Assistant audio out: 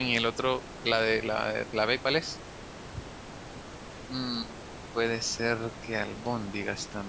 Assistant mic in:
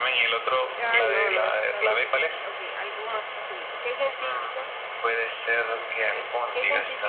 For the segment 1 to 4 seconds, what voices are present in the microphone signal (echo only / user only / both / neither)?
both